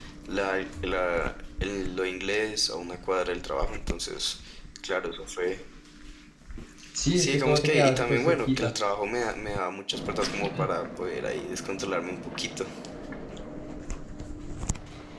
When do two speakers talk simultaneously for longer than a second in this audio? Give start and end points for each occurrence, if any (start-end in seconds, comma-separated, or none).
7.1-8.7